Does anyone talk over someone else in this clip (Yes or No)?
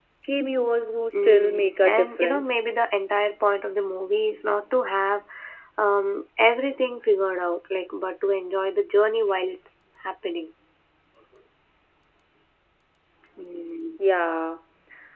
Yes